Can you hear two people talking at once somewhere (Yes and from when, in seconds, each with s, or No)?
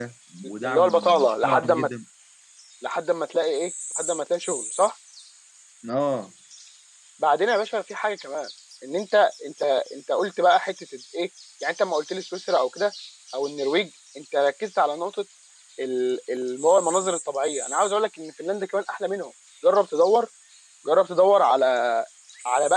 Yes, from 0.6 s